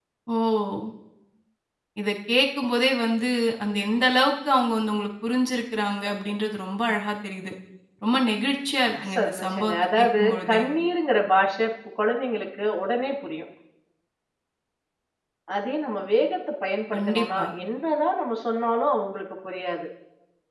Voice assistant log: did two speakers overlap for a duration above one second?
Yes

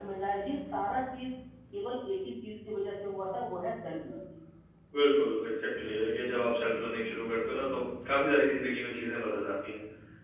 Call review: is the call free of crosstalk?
Yes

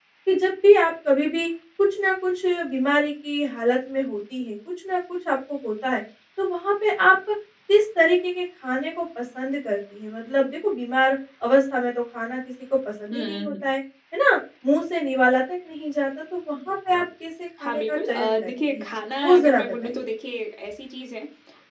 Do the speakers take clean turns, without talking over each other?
No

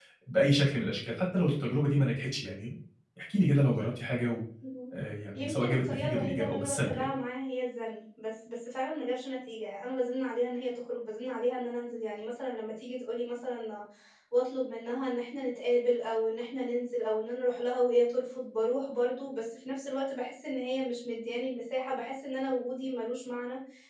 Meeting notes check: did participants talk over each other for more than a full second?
Yes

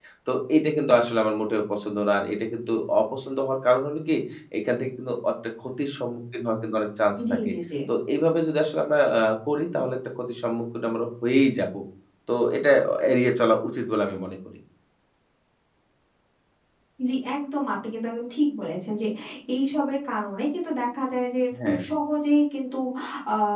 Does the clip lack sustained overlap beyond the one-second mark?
Yes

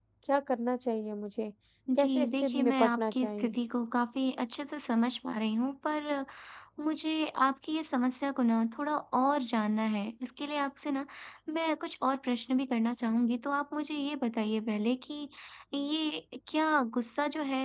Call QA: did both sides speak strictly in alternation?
No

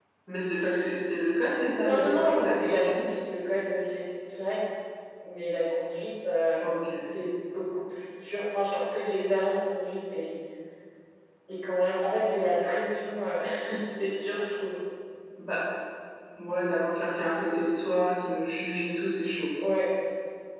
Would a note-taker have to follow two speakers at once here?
Yes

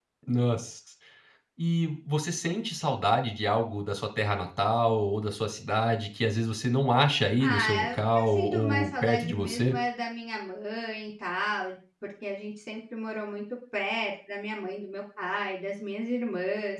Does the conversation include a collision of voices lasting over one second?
Yes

